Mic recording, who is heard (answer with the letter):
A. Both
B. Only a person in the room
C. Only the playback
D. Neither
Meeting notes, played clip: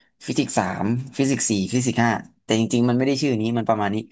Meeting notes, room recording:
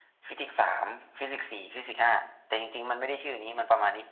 C